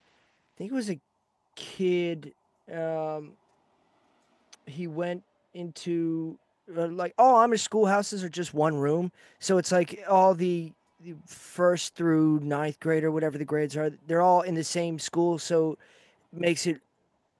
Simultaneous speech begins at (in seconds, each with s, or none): none